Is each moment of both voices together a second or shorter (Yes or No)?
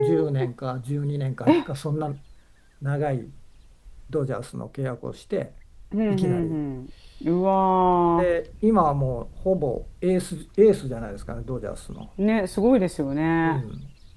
Yes